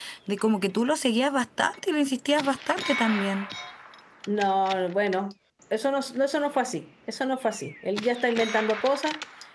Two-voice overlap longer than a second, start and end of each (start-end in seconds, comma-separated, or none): none